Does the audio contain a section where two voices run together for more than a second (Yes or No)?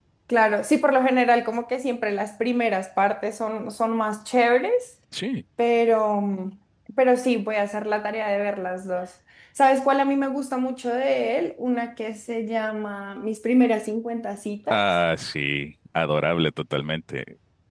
No